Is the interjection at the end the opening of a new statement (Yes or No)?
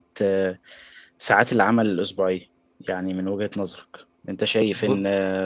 No